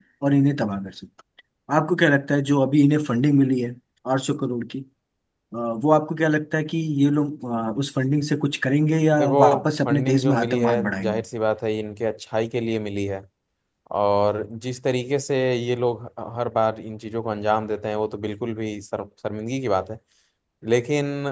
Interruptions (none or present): present